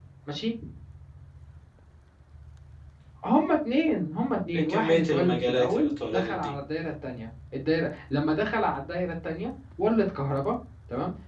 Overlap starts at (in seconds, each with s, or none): 4.5 s